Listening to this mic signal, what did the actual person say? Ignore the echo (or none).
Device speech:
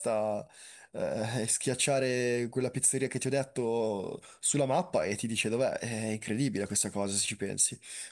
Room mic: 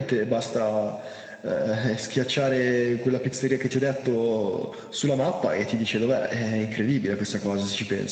none